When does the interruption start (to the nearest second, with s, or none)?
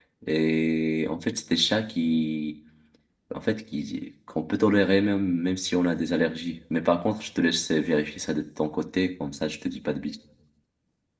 none